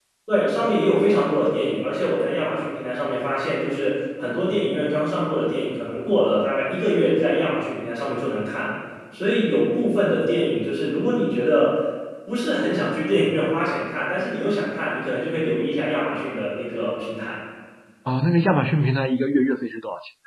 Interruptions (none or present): none